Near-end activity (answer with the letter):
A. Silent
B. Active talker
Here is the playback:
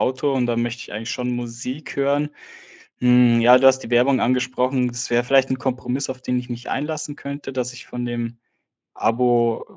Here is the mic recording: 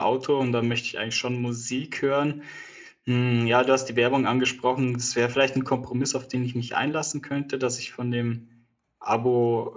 A